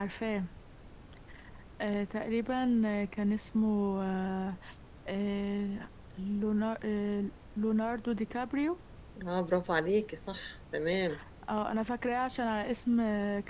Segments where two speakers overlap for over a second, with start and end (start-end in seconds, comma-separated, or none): none